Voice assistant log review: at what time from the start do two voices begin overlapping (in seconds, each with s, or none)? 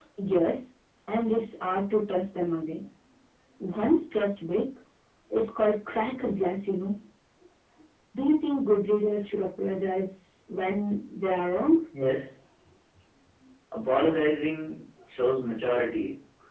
none